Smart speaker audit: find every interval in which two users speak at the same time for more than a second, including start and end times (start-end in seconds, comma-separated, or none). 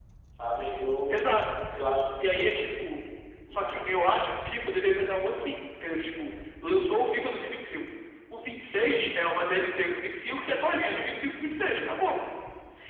none